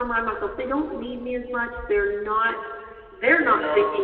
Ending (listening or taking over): listening